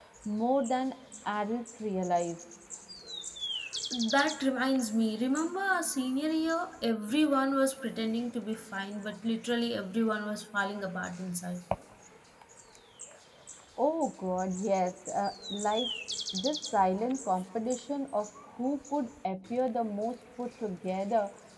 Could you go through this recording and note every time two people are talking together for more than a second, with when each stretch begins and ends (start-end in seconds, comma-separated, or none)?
none